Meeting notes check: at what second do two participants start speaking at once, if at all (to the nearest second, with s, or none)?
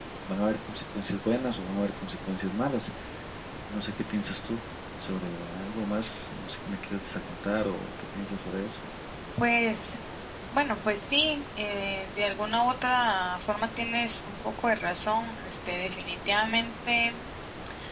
none